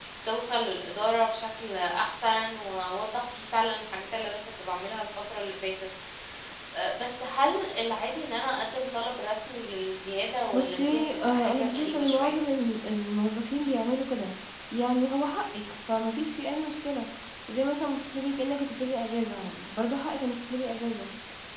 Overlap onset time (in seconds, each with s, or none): 10.5 s